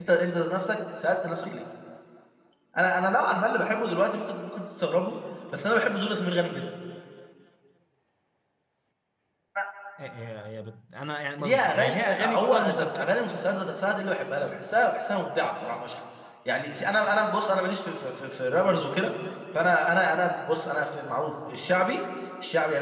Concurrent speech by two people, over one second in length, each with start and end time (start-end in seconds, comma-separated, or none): 11.4-13.1